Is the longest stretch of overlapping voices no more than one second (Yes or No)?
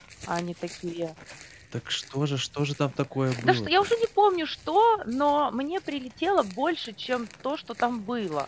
Yes